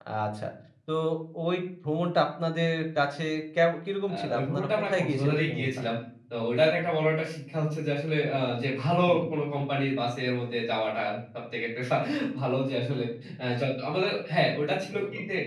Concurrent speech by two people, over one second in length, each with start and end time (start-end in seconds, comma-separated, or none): 4.1-5.8